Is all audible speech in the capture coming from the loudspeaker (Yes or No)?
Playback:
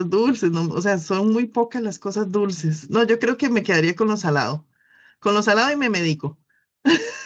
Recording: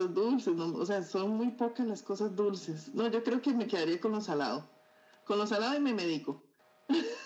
Yes